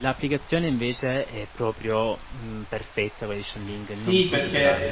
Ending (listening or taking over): taking over